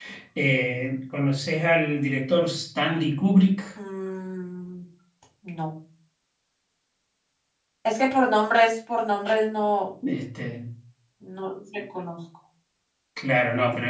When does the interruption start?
none

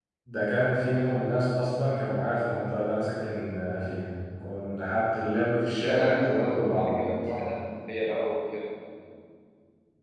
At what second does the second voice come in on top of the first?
5.8 s

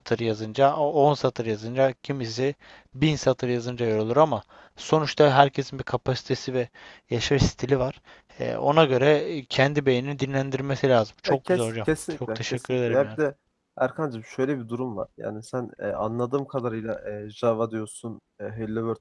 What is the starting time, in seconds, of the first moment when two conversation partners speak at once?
11.3 s

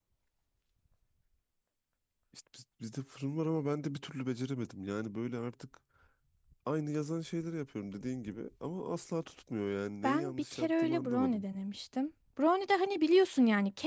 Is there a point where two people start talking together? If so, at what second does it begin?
10.0 s

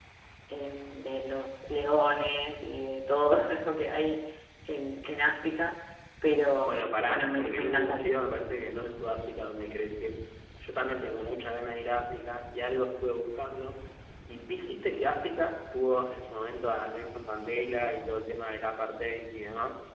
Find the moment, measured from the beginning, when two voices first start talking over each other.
6.6 s

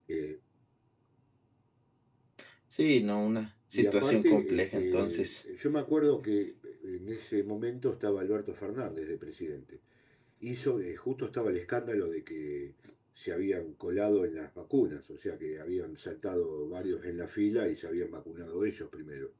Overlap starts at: 3.7 s

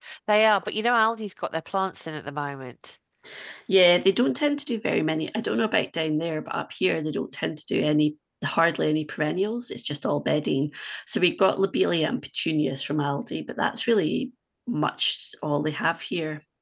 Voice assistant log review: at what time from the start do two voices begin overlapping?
none

